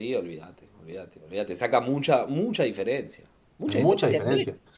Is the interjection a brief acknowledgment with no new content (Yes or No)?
No